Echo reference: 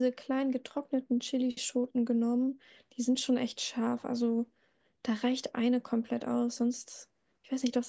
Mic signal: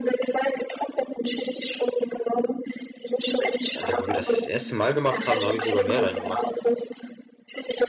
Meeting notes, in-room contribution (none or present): present